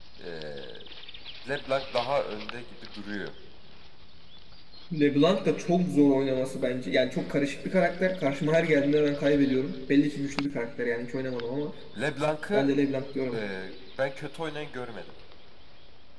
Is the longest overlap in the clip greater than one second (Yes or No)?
No